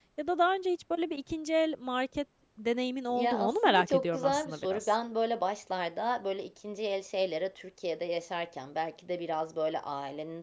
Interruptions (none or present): present